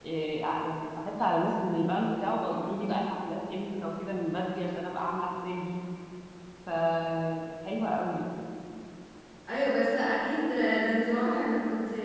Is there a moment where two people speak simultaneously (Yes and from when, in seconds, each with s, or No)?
No